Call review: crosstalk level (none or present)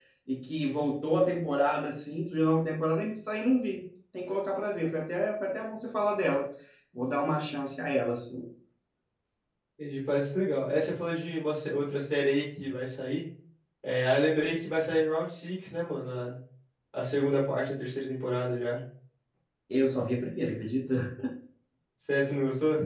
none